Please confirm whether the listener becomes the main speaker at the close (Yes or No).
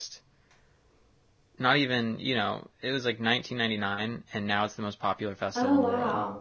Yes